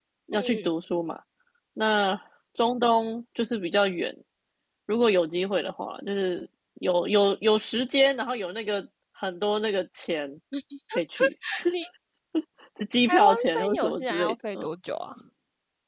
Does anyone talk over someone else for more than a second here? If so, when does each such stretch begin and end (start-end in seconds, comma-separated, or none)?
13.1-14.7